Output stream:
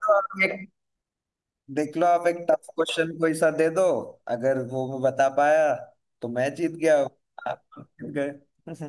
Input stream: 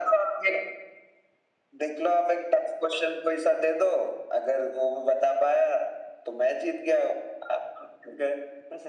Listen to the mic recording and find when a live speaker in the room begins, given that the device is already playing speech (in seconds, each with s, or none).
none